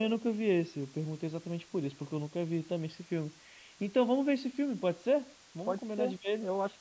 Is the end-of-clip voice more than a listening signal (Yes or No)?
Yes